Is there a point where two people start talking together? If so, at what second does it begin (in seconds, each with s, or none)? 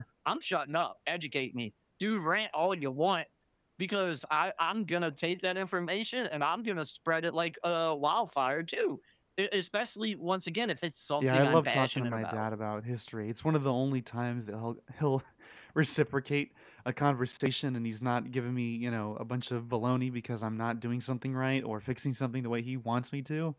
11.2 s